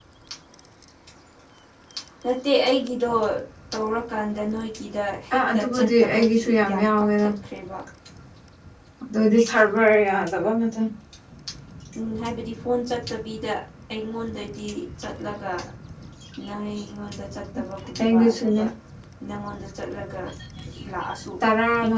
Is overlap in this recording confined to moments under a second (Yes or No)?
No